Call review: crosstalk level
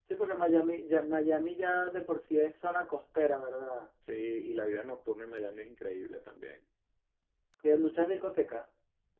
none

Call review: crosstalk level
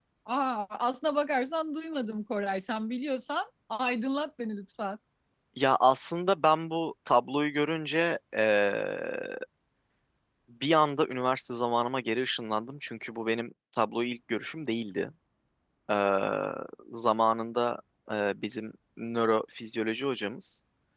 none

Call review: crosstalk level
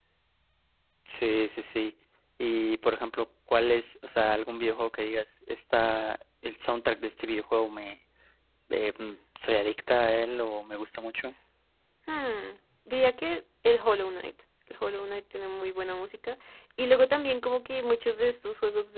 none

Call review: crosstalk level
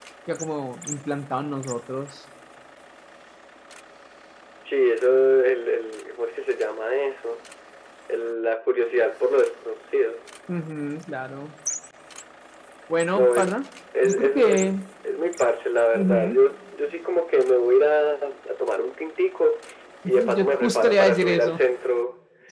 present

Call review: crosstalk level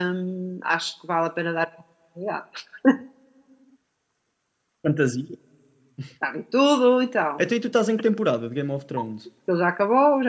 none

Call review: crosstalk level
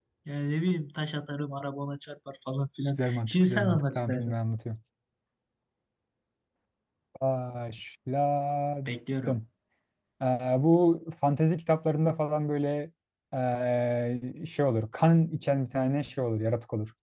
present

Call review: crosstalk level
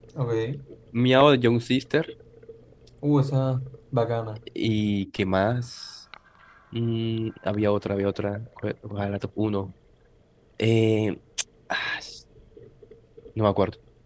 none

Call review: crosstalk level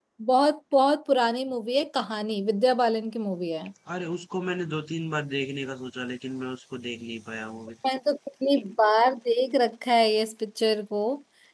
none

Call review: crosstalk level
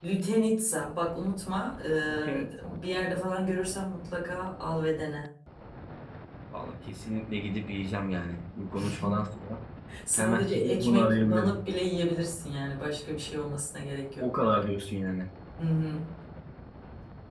present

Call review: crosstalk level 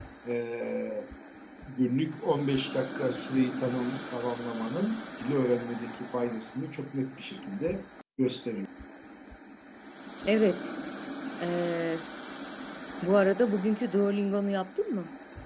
none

